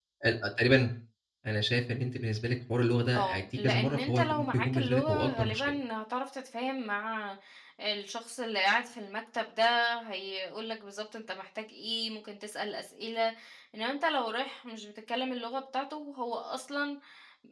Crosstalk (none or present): present